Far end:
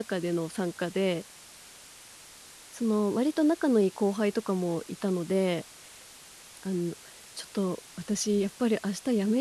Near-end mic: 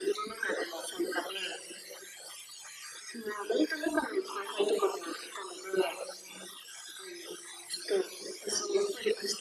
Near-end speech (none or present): none